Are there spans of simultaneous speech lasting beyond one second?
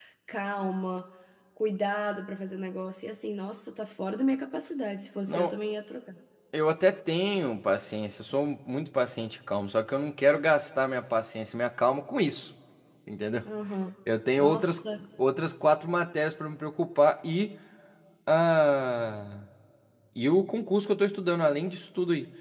No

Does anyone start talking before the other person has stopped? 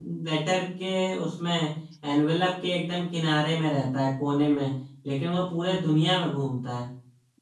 No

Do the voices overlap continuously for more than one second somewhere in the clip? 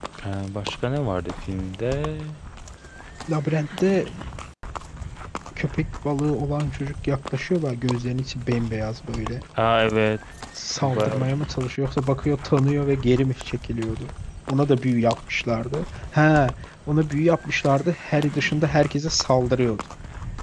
No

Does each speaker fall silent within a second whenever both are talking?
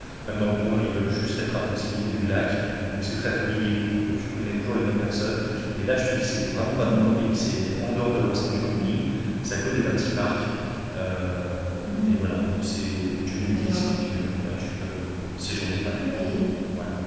Yes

